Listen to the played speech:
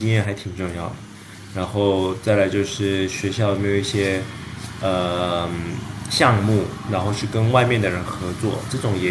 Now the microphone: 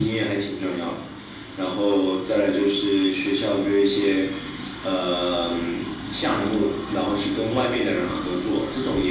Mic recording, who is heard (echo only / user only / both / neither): echo only